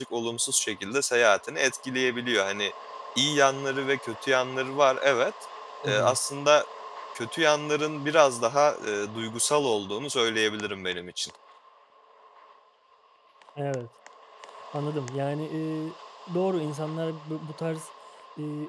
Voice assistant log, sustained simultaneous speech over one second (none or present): none